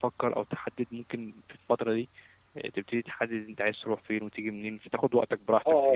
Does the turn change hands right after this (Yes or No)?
Yes